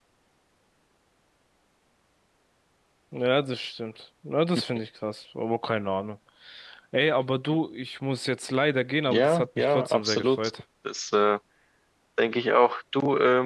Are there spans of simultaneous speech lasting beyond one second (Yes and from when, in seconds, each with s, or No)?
Yes, from 9.1 s